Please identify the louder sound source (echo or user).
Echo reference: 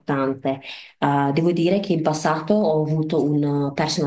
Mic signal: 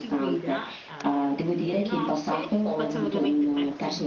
echo